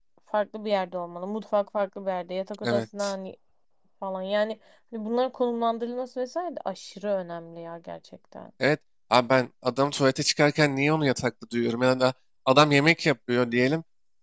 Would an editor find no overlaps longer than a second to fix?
Yes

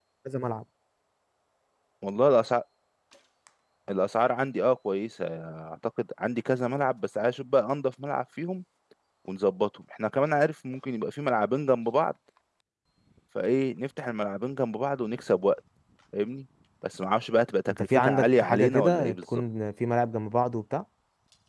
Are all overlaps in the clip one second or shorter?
No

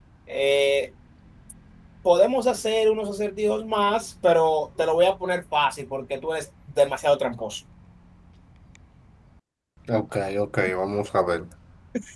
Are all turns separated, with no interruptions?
Yes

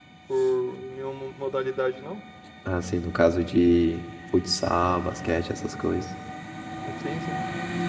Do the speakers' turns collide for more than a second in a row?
No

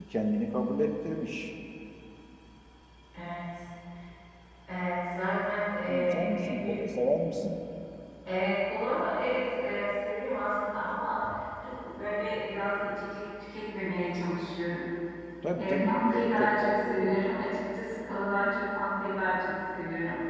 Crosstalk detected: Yes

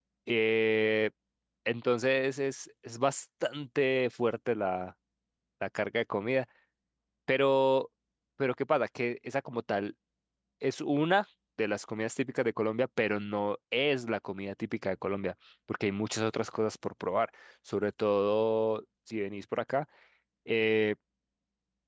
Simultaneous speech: No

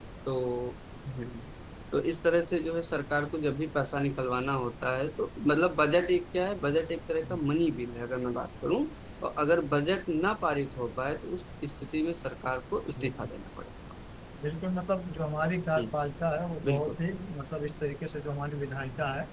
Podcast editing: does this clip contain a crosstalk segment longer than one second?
No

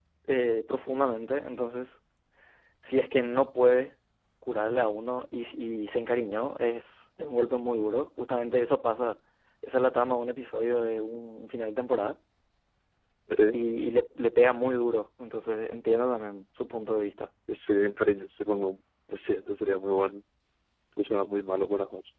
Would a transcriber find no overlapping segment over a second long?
Yes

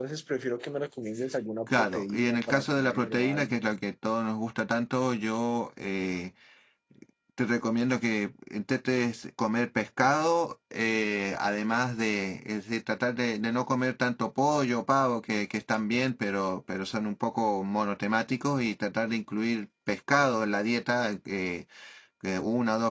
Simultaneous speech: Yes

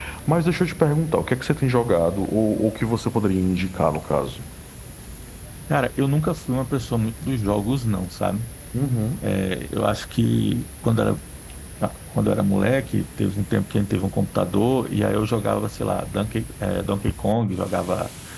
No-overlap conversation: Yes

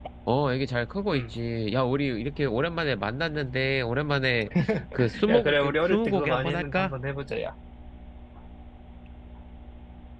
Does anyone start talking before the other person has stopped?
Yes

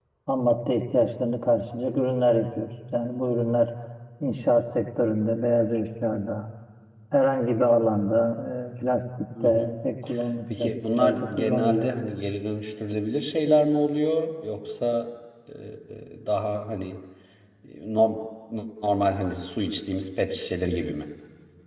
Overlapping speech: Yes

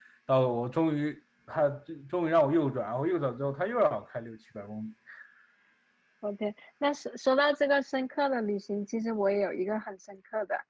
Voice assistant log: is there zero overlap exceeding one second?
Yes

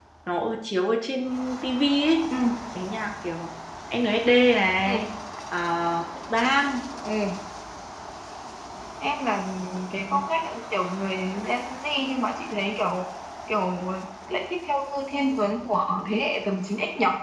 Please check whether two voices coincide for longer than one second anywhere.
No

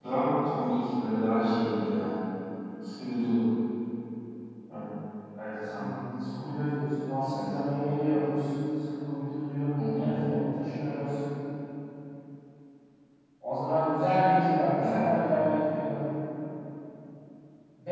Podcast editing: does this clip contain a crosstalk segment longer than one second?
No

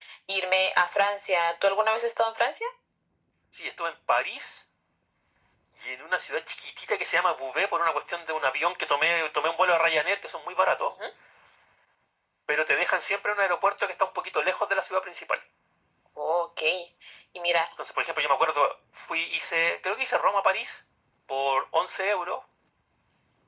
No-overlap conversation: Yes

